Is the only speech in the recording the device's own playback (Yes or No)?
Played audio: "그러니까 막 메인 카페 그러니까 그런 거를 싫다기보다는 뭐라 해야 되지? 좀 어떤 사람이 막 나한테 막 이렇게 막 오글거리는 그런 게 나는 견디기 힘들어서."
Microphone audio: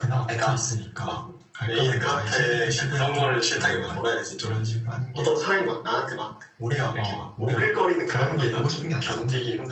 No